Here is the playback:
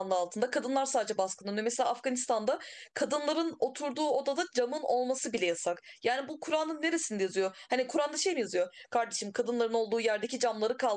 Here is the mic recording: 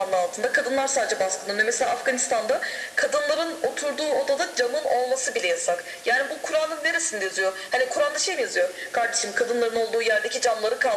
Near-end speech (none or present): none